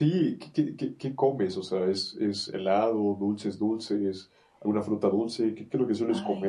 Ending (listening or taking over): taking over